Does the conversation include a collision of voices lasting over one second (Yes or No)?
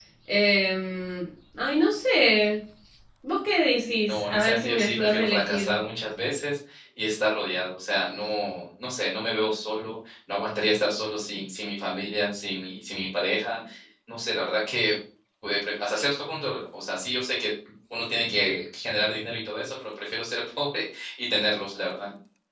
Yes